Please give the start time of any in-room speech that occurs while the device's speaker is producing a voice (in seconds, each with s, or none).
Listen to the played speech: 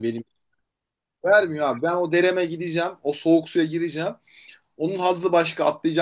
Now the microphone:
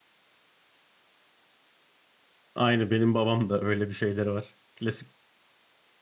2.5 s